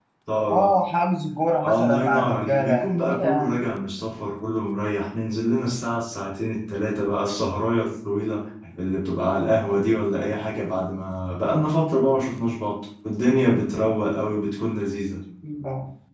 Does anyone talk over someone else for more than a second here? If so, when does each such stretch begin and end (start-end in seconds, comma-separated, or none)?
1.7-3.6